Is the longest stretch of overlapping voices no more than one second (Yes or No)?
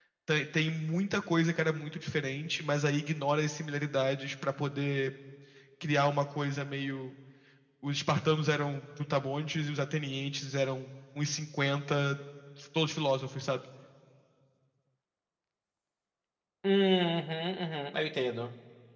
Yes